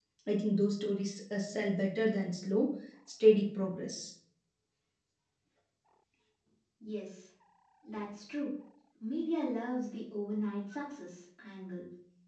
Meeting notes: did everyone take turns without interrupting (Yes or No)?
Yes